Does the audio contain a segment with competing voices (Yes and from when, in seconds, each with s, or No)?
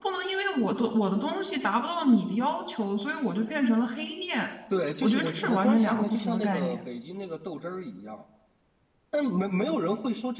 Yes, from 5.0 s